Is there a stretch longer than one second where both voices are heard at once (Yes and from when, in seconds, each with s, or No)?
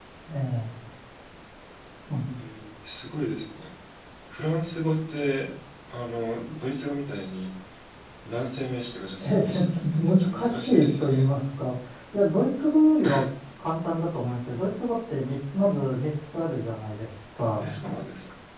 Yes, from 9.2 s